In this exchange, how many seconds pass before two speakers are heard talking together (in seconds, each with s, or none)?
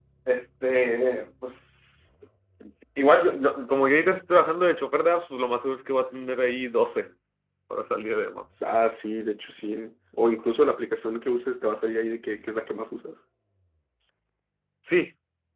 none